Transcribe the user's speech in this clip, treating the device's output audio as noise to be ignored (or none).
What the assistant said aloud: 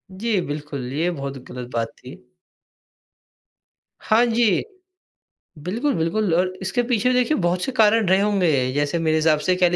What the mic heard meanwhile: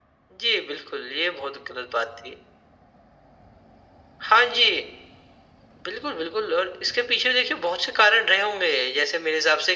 none